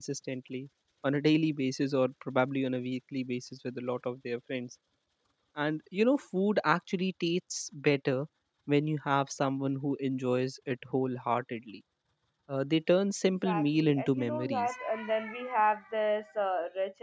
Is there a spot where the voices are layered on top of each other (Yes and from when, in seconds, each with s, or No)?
Yes, from 13.2 s